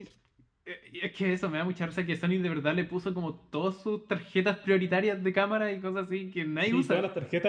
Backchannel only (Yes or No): No